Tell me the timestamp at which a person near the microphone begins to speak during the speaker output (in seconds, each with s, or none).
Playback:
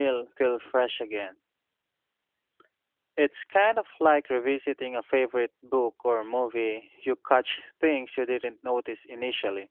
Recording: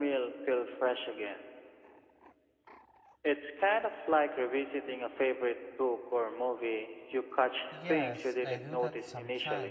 7.7 s